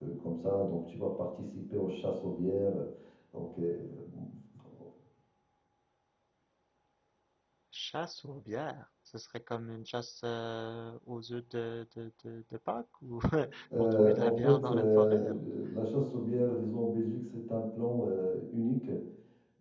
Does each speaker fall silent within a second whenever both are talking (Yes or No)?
No